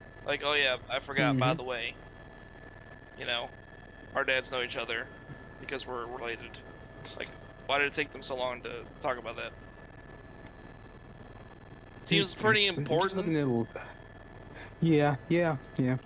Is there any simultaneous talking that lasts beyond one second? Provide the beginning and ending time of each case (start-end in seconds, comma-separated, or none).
12.1-13.3